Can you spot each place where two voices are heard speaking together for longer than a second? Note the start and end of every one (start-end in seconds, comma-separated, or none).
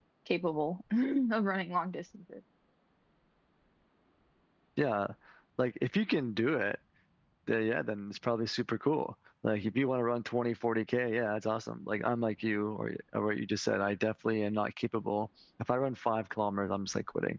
none